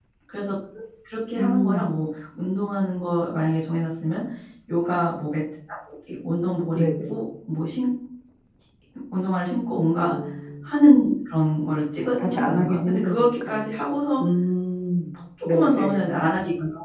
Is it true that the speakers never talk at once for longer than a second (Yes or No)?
No